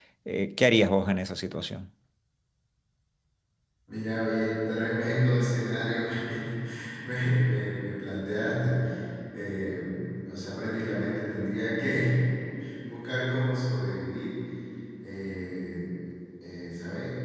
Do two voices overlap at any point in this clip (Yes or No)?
No